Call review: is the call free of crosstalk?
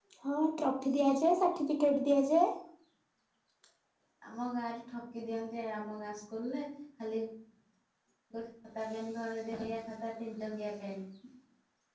Yes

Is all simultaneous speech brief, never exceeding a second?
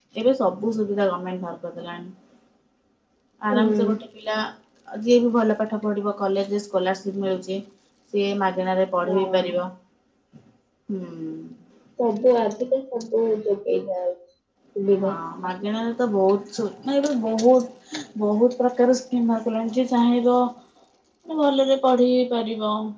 Yes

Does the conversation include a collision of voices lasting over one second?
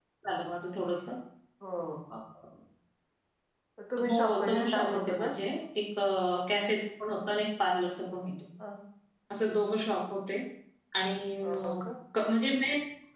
Yes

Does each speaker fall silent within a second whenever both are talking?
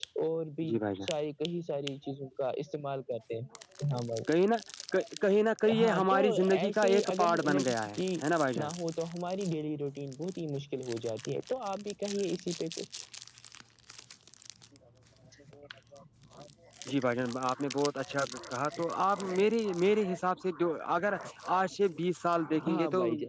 No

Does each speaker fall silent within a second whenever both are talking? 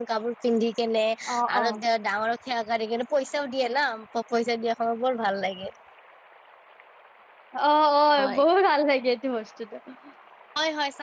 Yes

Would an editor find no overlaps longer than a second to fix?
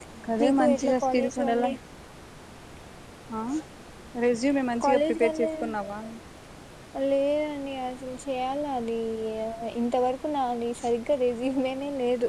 No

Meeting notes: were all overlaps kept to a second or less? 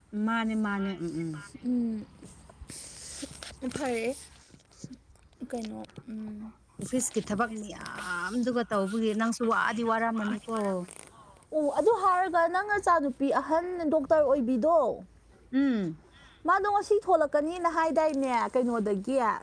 Yes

